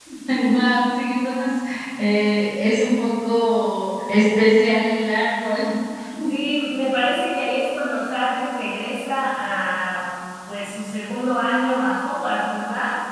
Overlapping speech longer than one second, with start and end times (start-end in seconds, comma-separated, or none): none